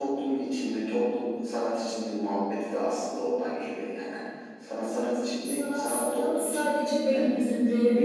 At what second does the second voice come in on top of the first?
5.4 s

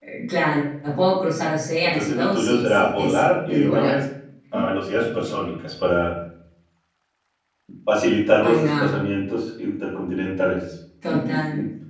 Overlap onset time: 1.9 s

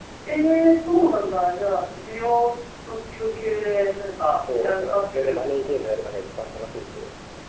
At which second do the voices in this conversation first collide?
4.3 s

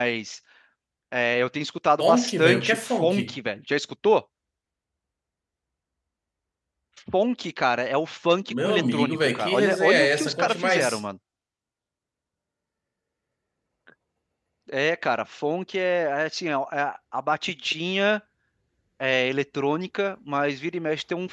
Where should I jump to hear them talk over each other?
2.0 s

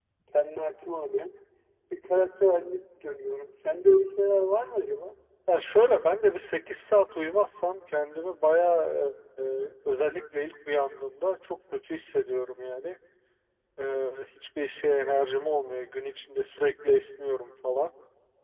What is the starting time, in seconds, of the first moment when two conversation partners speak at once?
none

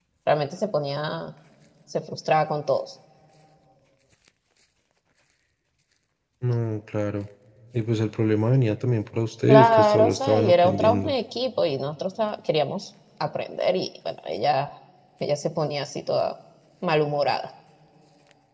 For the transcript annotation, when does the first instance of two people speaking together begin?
9.5 s

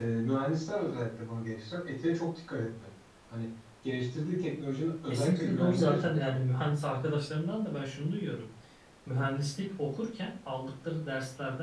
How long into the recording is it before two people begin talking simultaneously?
5.1 s

